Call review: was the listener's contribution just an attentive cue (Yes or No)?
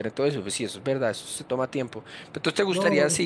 Yes